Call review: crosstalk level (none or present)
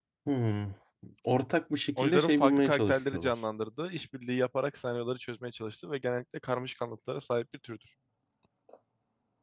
present